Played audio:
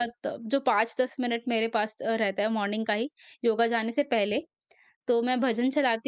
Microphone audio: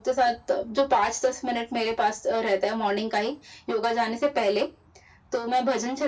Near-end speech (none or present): none